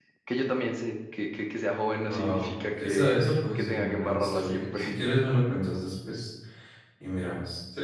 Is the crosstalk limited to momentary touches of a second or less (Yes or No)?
No